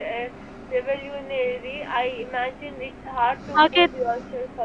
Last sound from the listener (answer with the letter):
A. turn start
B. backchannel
B